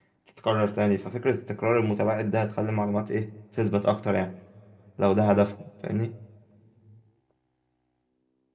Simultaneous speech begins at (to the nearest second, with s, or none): none